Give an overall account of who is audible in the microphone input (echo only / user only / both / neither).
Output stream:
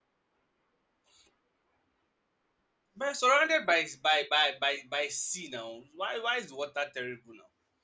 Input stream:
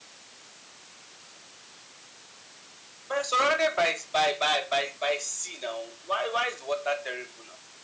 echo only